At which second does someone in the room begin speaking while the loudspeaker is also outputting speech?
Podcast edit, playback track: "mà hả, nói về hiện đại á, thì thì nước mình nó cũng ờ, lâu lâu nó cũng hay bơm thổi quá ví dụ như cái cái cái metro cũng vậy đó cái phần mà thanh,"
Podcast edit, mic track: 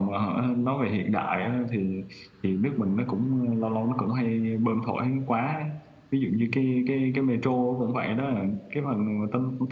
none

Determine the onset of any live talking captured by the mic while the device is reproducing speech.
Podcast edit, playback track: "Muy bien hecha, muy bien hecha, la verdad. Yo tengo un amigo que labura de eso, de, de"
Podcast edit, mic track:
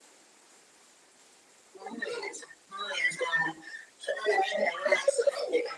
none

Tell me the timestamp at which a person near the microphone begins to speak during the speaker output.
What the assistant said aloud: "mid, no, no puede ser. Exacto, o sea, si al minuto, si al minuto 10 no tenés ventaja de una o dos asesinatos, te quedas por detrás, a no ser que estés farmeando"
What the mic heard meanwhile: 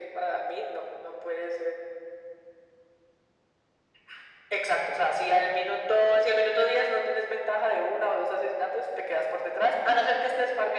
none

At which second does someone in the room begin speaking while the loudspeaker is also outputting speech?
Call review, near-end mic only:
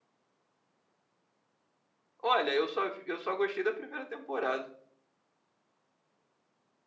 2.2 s

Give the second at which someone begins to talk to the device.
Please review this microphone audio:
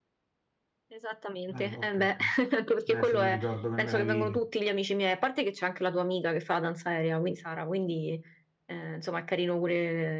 1.5 s

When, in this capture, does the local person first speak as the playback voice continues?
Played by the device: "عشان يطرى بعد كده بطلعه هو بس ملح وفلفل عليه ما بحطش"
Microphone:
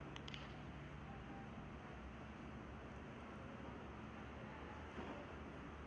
none

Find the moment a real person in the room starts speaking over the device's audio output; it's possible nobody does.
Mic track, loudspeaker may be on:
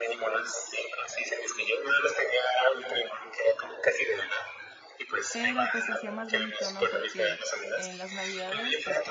5.3 s

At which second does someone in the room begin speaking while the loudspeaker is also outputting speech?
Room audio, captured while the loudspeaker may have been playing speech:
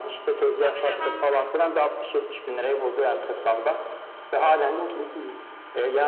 0.6 s

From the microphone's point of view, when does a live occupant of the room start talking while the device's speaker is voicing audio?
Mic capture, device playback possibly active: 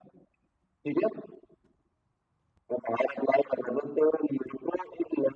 none

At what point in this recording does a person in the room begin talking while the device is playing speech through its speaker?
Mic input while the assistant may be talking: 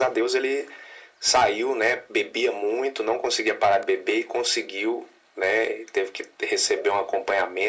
none

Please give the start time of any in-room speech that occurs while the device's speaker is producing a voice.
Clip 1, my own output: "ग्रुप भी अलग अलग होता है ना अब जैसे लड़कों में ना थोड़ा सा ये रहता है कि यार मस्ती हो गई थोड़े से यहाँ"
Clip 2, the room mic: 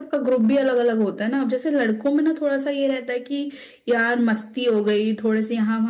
none

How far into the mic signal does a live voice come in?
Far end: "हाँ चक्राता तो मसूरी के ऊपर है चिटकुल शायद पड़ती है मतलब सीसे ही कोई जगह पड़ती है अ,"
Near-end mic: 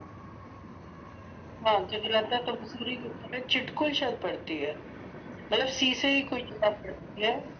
none

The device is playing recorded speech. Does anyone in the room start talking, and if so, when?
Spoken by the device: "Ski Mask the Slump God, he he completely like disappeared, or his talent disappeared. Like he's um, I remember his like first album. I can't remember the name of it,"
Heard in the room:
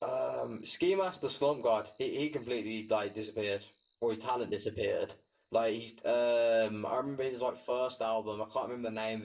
none

